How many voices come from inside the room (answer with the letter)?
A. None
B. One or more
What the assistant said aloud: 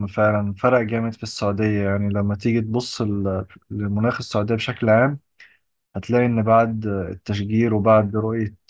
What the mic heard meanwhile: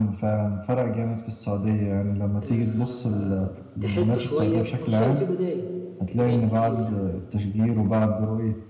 B